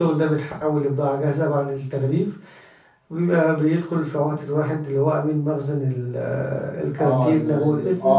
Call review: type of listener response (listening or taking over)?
taking over